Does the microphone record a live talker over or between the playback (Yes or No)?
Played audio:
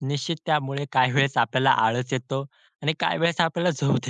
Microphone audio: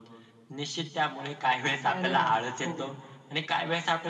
Yes